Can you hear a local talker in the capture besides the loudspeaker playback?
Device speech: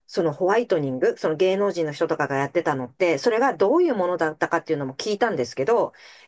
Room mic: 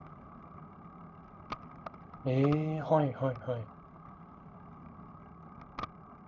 Yes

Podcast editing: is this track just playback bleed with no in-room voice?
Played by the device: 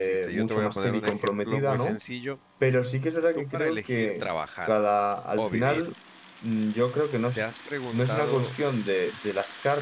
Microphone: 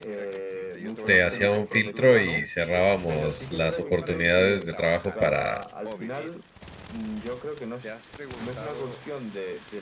No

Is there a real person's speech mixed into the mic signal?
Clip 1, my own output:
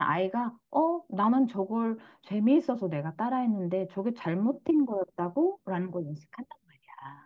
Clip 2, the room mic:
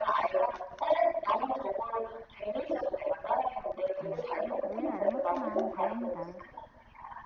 Yes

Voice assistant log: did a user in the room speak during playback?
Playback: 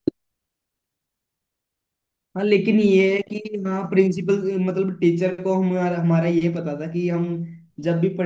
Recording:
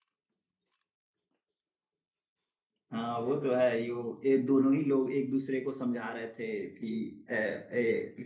Yes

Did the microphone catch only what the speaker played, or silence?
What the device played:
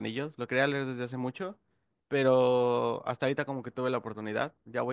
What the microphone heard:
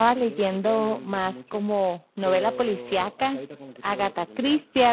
No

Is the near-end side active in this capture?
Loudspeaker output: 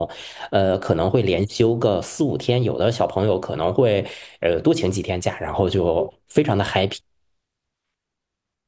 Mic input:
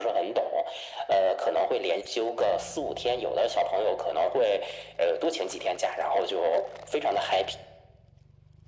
No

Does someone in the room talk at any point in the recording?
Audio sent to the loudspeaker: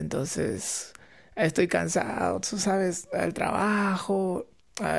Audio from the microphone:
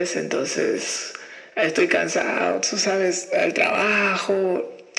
No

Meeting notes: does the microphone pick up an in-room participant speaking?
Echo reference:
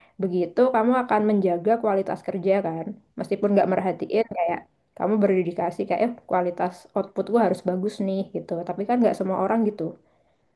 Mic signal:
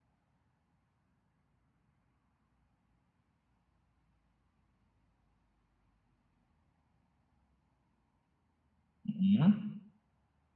Yes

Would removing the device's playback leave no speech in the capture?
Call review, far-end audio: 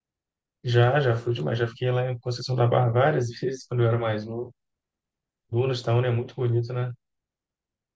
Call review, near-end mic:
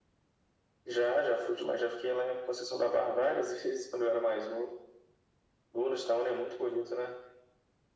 Yes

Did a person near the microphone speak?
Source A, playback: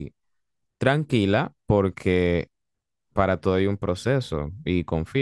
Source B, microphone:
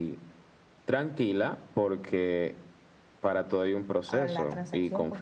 Yes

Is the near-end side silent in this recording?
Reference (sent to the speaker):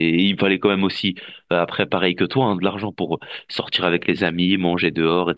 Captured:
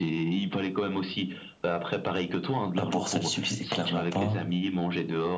No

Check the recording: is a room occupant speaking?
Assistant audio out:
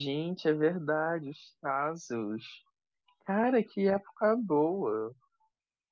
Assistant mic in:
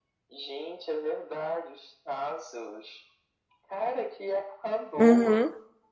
Yes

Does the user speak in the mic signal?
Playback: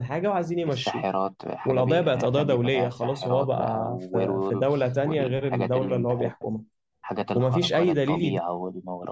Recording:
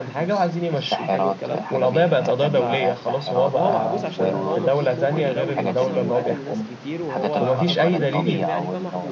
Yes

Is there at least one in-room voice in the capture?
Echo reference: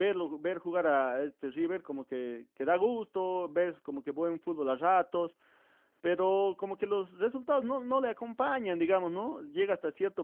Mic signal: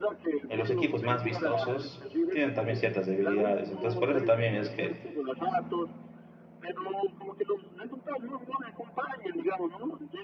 Yes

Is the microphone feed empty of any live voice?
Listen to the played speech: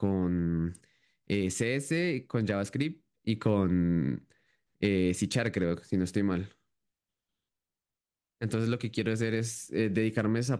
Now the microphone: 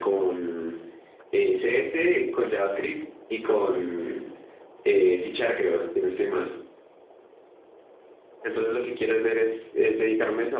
Yes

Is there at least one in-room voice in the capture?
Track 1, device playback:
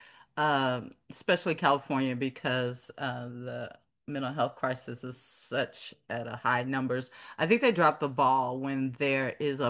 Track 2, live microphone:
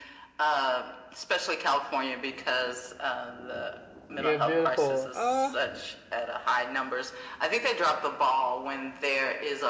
Yes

